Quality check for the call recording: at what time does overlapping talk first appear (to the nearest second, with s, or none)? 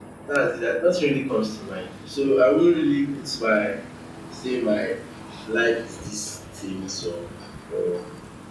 none